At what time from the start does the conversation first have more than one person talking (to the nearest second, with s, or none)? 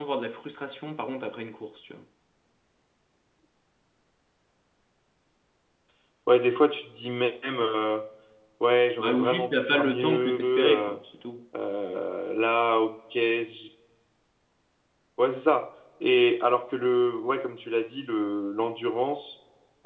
9 s